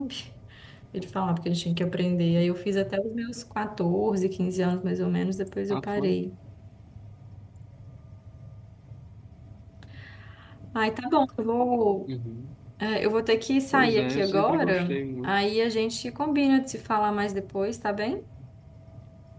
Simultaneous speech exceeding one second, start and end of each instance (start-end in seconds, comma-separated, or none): 13.7-15.4